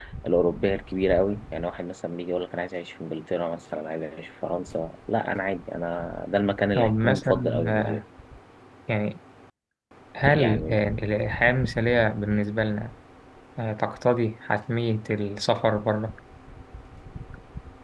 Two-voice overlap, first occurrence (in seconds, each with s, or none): 6.8 s